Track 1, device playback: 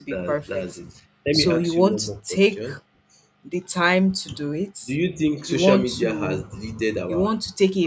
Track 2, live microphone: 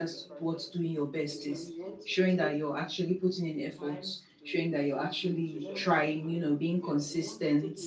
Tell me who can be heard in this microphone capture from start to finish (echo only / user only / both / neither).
both